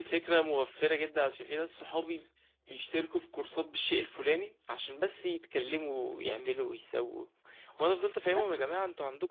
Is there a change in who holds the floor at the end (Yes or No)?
No